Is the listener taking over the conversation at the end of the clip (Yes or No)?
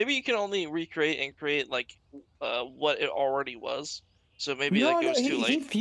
Yes